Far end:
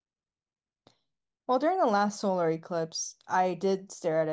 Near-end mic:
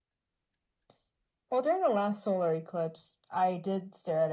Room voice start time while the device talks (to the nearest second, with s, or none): none